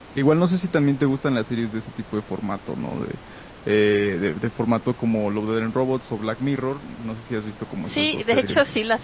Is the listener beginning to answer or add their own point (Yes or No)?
Yes